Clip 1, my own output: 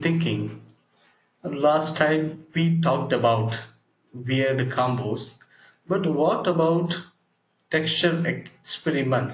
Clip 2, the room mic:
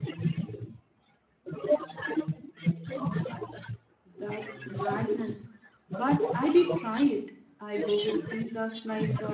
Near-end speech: present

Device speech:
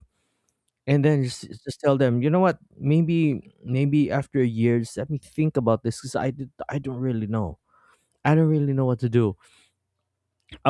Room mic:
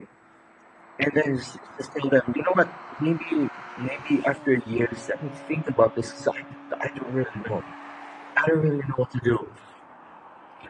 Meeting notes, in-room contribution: none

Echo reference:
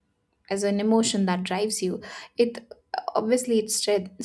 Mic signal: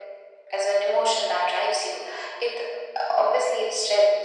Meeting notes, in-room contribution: none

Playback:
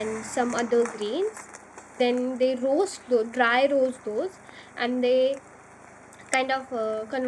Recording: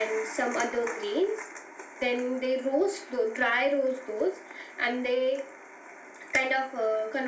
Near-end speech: none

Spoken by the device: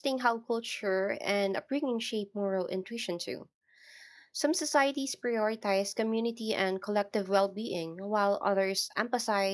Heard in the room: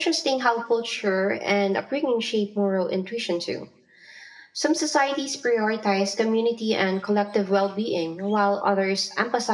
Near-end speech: none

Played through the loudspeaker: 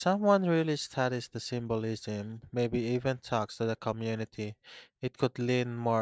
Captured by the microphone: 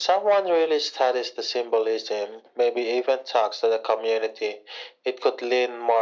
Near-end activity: none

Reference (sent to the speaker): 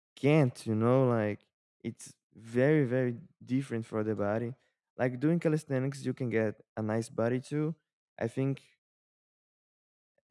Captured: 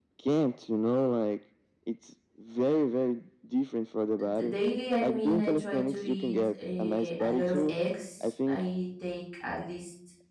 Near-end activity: present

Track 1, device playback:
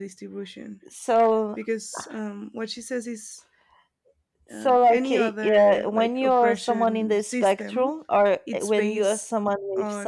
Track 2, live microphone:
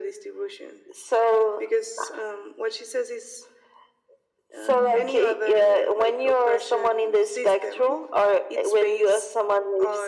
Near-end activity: present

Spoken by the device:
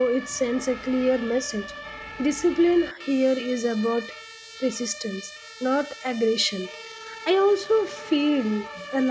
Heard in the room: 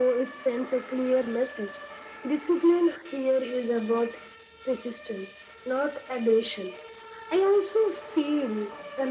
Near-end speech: none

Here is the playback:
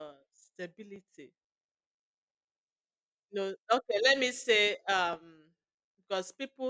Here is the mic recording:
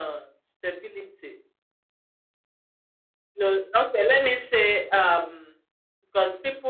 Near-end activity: none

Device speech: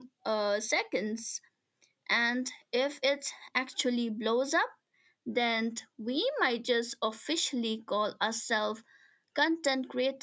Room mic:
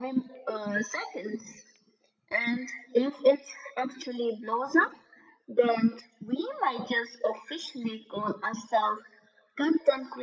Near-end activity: none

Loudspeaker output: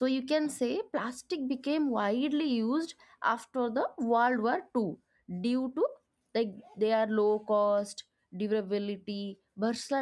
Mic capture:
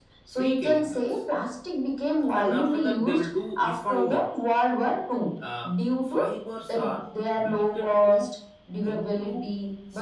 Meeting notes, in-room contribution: present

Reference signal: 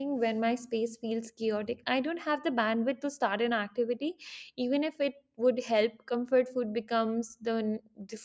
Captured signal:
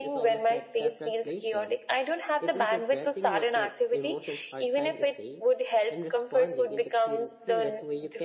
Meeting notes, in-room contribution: present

